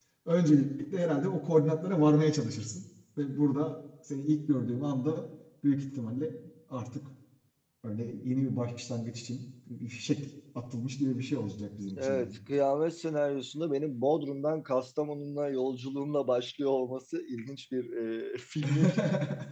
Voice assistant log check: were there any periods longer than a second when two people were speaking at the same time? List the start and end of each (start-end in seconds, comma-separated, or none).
none